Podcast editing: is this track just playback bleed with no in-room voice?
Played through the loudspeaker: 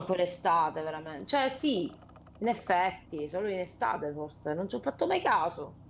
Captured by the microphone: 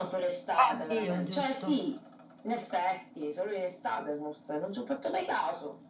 No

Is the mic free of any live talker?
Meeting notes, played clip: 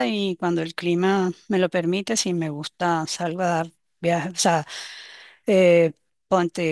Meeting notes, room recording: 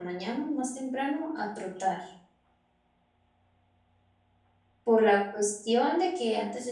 No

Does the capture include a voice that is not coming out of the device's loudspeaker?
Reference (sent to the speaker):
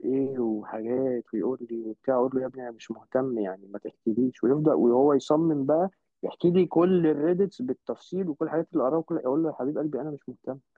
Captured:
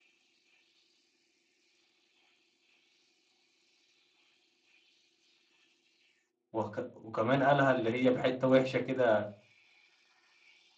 Yes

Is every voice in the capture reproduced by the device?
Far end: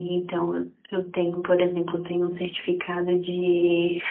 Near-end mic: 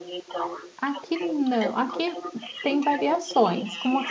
No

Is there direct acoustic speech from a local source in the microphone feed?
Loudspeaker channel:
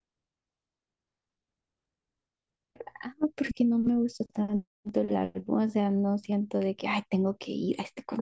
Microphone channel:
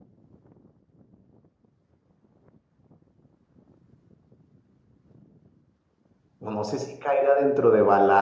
Yes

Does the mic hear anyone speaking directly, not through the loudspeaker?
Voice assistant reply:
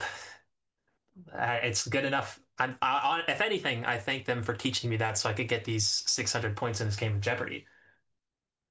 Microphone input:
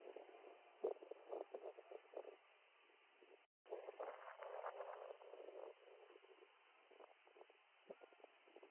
No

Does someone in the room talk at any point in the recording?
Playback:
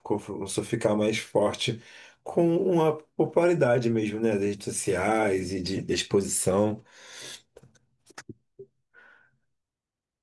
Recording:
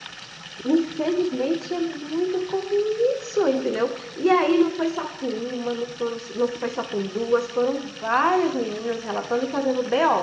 Yes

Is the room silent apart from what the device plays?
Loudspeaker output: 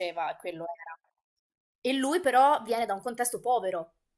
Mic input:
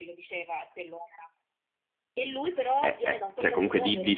No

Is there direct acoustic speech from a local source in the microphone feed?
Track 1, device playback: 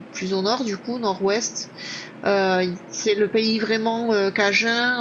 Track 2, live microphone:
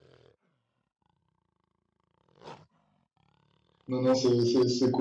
Yes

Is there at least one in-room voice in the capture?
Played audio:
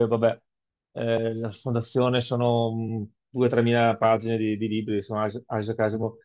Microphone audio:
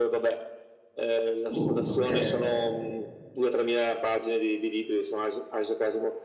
Yes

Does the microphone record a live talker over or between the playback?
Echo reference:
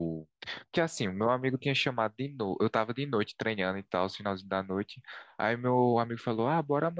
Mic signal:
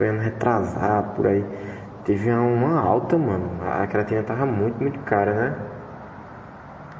Yes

